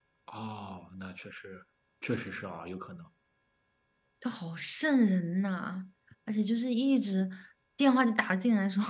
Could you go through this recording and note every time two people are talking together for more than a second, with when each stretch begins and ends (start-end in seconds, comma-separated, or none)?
none